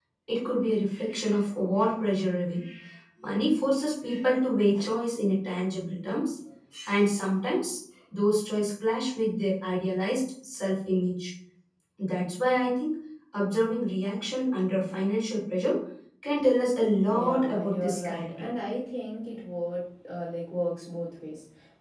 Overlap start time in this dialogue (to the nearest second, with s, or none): 17 s